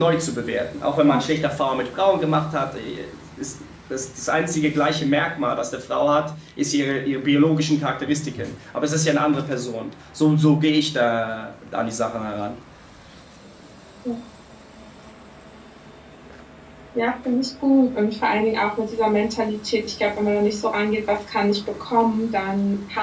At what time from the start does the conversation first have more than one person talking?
none

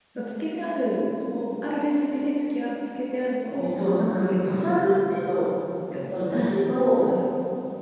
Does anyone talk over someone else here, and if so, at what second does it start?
4 s

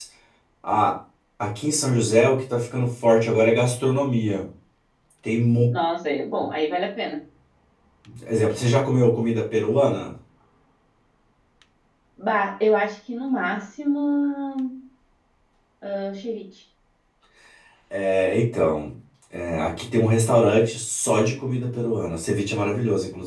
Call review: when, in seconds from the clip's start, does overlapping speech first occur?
none

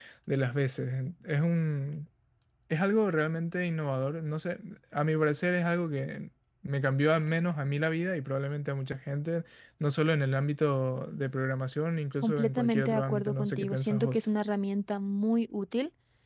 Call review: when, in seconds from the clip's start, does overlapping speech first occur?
12 s

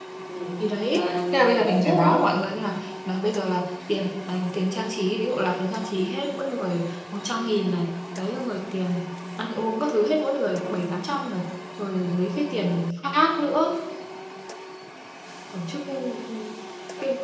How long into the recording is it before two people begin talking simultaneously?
1 s

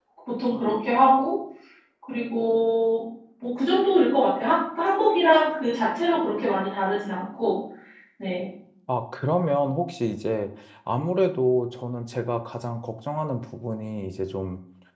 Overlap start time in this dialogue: none

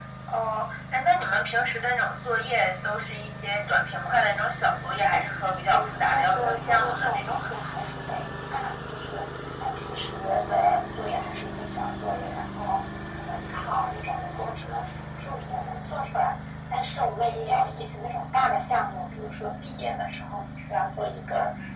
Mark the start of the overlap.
6 s

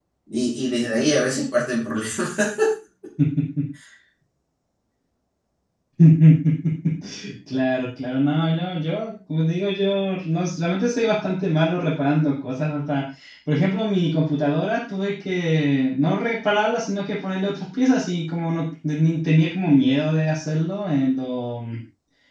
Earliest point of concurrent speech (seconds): none

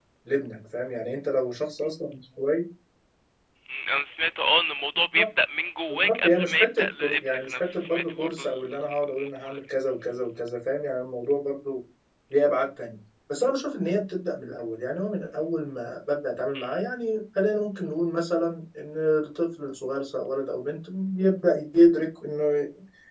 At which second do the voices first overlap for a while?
6 s

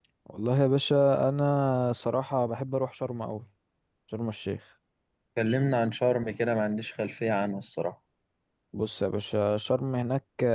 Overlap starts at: none

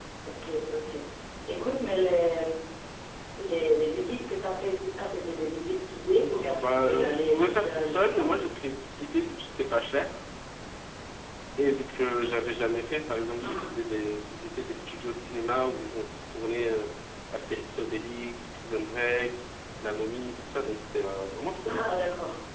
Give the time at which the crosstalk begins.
7 s

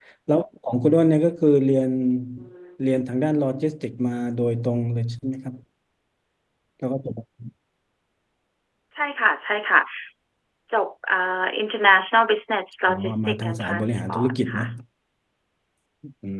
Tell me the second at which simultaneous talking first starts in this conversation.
13 s

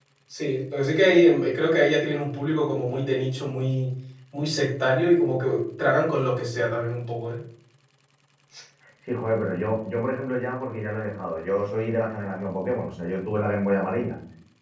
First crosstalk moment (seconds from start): none

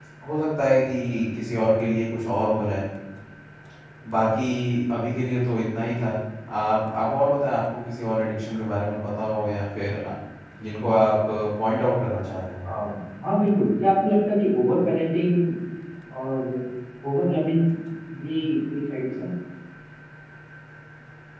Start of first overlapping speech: none

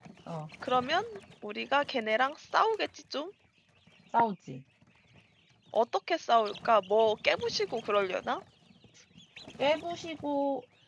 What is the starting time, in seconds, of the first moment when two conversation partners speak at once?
none

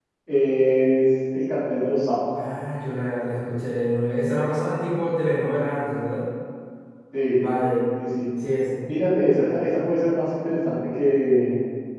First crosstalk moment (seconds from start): none

